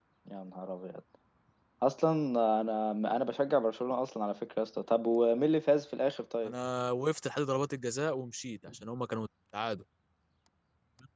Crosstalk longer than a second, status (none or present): none